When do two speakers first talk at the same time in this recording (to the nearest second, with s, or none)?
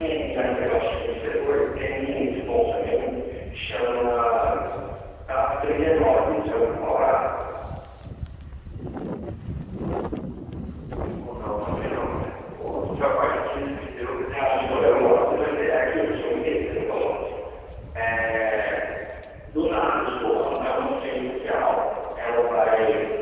14 s